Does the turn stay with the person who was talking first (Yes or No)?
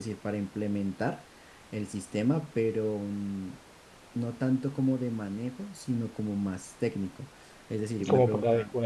No